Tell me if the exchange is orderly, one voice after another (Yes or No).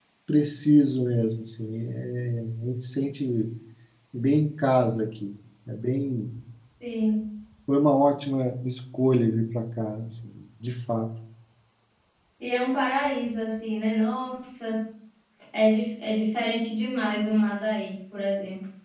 Yes